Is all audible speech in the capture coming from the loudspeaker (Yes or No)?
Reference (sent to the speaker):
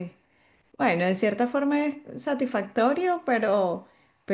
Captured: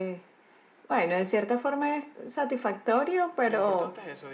No